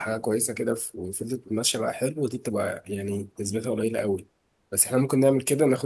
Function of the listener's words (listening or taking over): listening